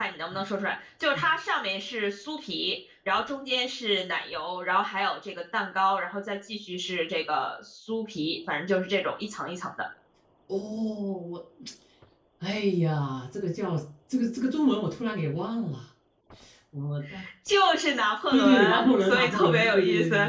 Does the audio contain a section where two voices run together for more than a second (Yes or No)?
Yes